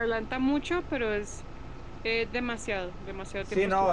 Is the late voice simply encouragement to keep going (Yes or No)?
No